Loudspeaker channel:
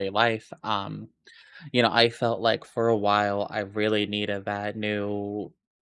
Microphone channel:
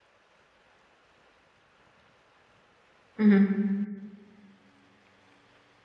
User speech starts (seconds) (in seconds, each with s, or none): 3.2 s